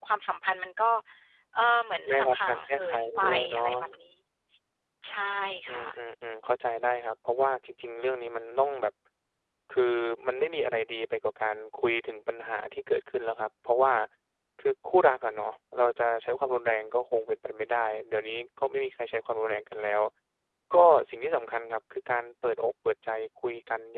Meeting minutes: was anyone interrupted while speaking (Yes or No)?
Yes